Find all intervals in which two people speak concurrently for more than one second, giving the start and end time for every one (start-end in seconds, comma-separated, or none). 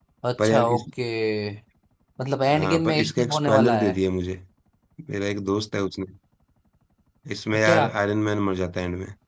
2.5-3.9